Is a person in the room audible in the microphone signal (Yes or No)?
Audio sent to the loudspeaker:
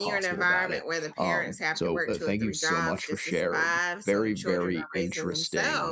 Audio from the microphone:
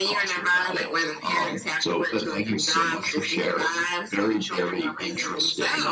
Yes